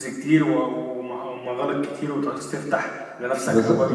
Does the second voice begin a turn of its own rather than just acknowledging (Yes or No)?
Yes